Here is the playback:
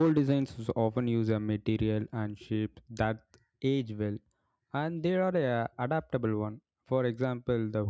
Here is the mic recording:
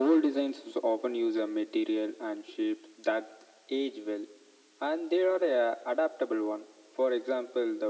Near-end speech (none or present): none